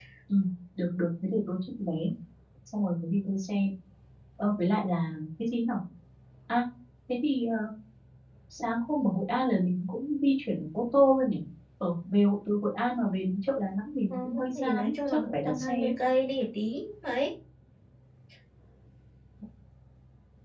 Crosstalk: present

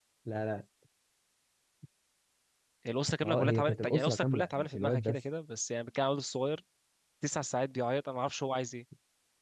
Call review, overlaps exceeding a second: present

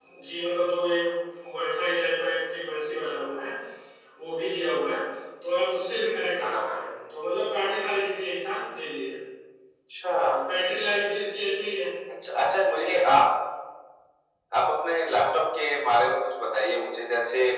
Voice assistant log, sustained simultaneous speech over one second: none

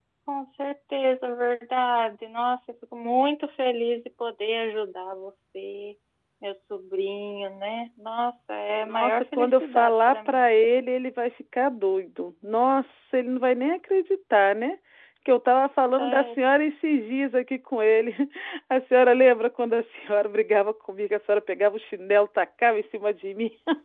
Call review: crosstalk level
present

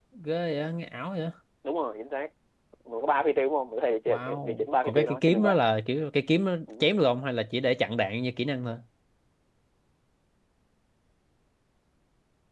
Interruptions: present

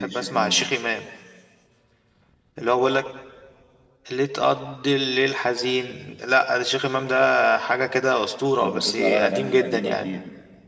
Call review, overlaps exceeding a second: present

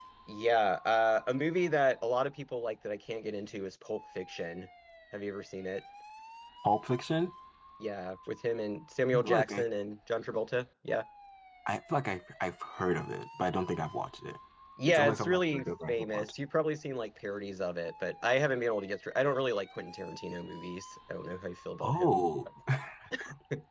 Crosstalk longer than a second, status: present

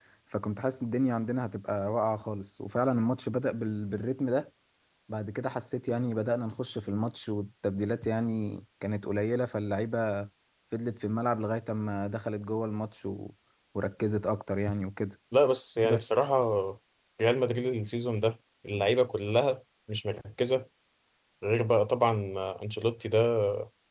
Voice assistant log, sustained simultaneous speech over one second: none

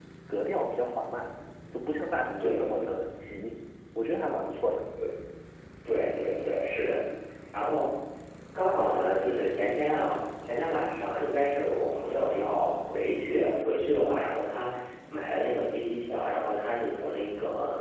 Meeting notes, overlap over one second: none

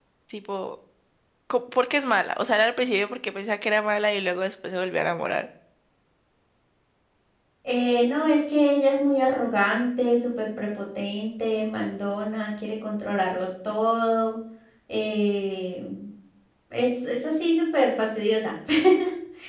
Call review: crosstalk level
none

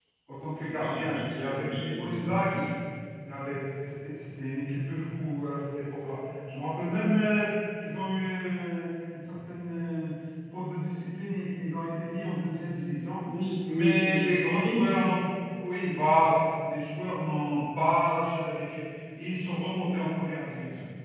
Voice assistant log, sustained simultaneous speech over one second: present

